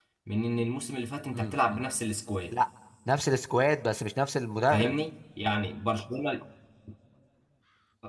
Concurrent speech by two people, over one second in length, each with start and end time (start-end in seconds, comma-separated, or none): none